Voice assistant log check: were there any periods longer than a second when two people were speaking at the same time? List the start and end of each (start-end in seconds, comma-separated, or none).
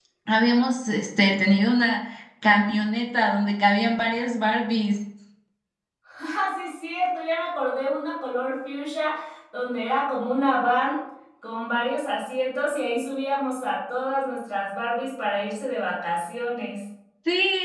none